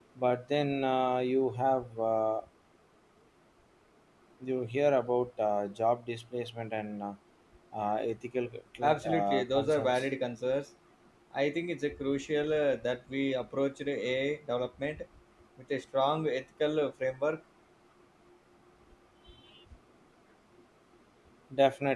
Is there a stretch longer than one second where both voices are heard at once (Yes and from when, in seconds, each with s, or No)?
Yes, from 8.8 s